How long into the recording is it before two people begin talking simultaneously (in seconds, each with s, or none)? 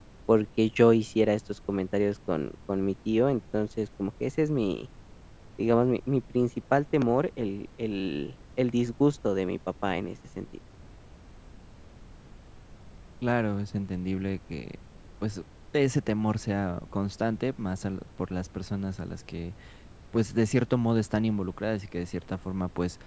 none